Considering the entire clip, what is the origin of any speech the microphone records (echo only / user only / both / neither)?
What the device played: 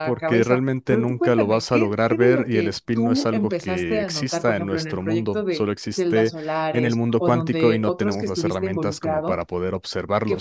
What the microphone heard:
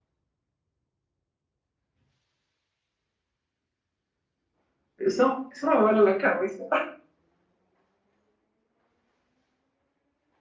user only